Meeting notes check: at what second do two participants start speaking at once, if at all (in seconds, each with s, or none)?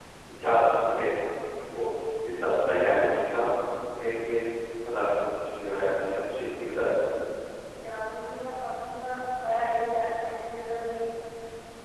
none